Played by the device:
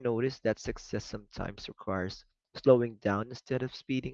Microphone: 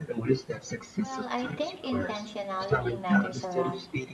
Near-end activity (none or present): present